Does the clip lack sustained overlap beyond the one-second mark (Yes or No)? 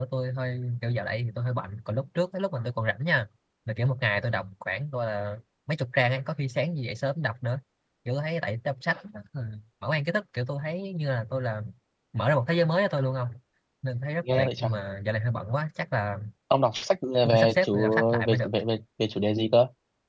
No